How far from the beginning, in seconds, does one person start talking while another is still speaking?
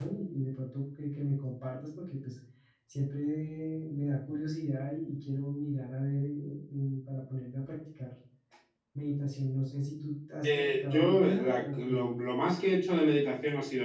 10.4 s

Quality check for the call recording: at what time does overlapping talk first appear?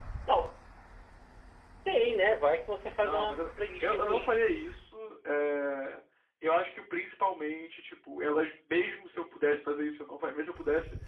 3.0 s

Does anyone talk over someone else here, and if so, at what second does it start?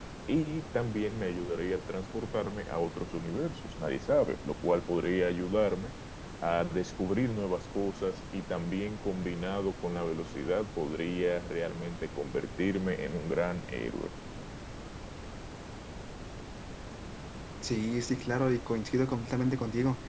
none

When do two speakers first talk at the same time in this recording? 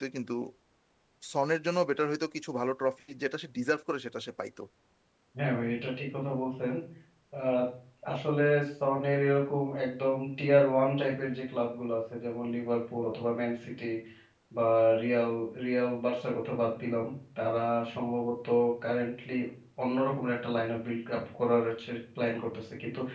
none

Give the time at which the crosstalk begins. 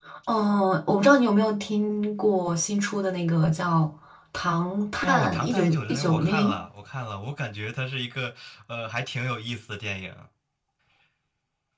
5.0 s

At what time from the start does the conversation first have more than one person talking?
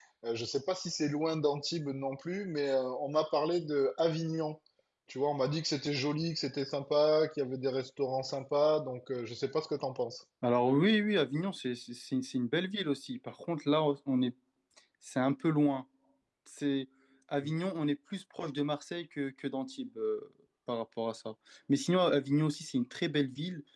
none

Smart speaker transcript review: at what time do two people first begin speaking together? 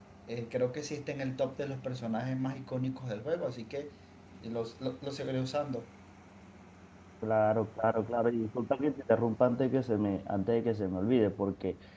none

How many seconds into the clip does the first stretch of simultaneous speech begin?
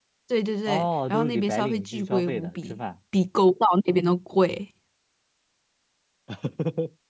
0.7 s

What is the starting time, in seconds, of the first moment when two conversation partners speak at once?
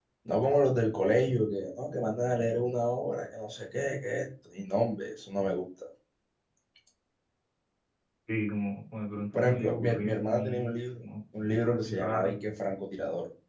9.3 s

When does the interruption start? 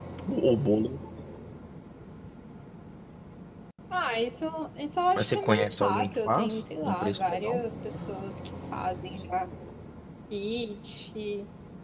5.2 s

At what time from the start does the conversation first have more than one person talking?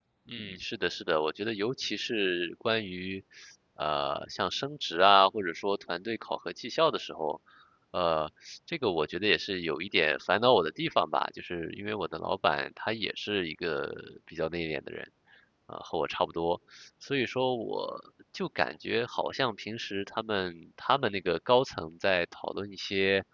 none

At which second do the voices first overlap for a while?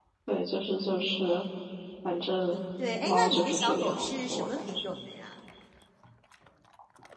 3.0 s

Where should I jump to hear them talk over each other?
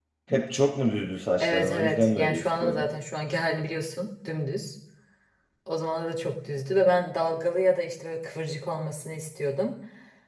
1.4 s

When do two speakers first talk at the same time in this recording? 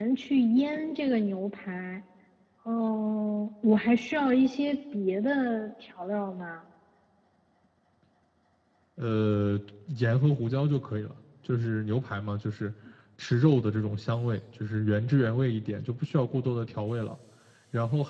none

